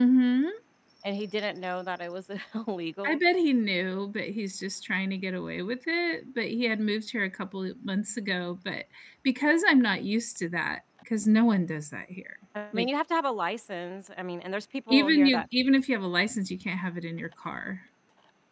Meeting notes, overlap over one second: none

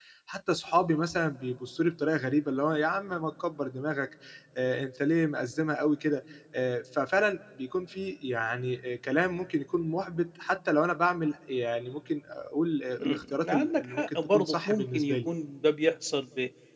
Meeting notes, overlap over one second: present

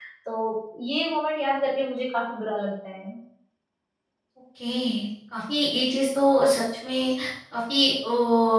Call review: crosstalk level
none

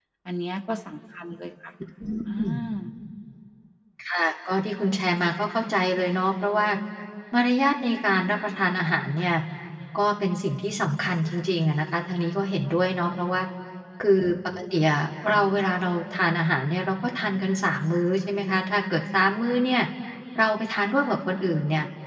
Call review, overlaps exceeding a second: none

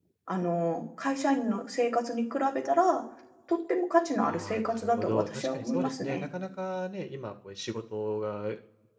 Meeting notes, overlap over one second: present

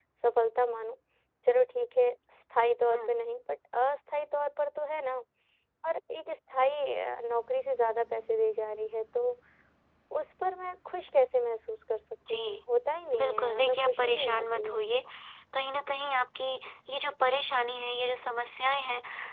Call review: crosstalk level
present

